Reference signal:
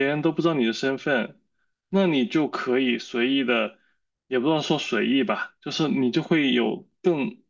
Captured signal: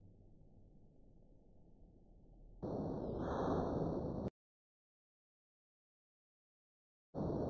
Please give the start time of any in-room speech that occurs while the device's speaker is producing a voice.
none

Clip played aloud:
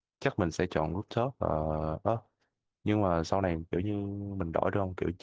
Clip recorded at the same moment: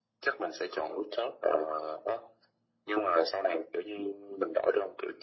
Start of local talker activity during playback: none

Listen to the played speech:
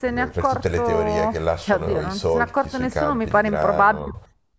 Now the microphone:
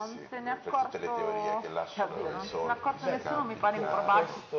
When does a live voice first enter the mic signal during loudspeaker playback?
2.0 s

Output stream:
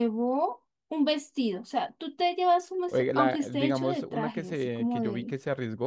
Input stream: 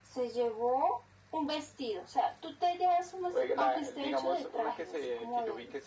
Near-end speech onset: none

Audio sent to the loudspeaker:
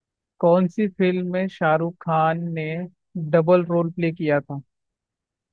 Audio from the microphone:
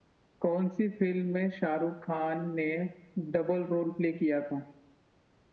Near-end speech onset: none

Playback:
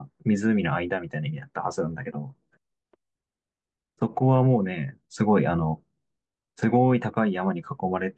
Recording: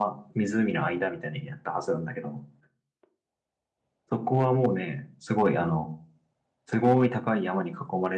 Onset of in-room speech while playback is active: none

